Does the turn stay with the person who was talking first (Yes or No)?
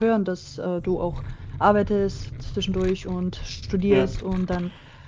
Yes